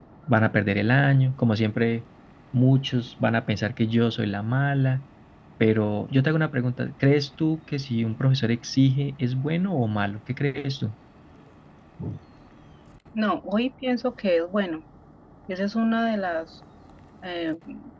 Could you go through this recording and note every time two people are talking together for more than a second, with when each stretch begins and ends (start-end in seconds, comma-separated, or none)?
none